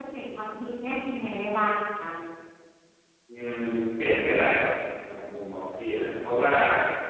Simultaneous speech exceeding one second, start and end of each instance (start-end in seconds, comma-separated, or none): none